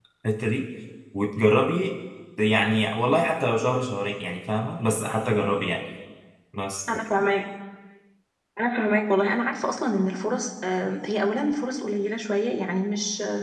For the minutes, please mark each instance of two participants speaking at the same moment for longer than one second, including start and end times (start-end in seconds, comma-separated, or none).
none